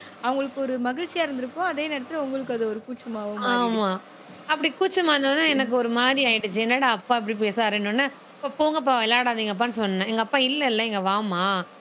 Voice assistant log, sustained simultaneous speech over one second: none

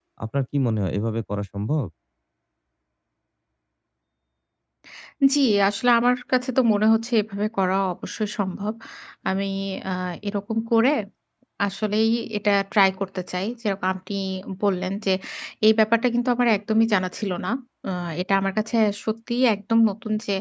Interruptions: none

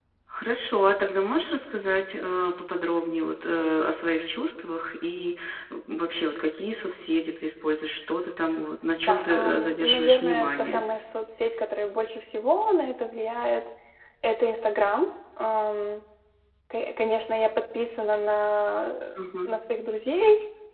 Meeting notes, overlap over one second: present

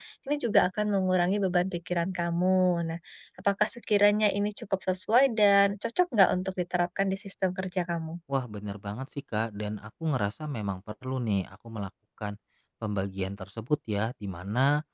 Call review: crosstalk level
none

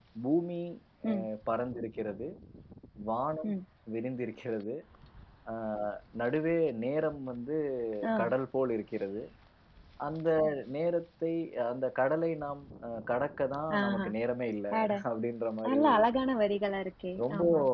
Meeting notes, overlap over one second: none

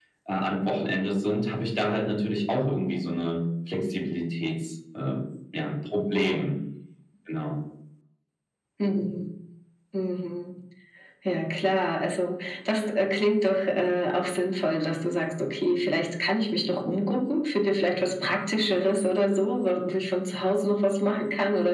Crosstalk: none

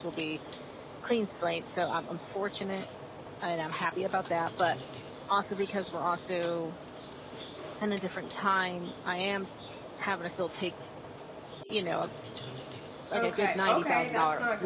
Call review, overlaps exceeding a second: present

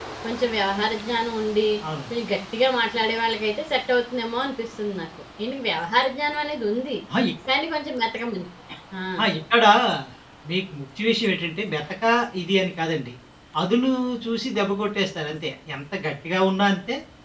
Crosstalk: none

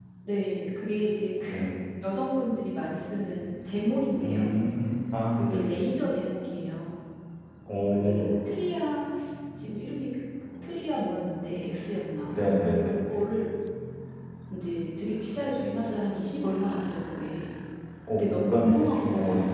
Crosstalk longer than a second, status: present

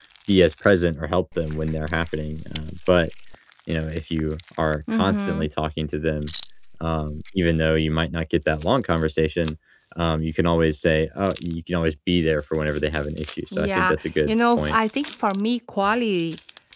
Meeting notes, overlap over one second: present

